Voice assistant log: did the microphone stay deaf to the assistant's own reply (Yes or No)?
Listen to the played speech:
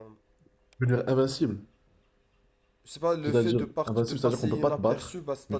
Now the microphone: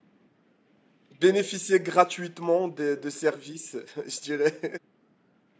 Yes